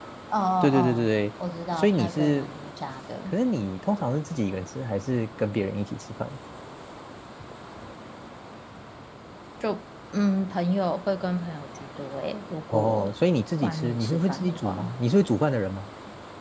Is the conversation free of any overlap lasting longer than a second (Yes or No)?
No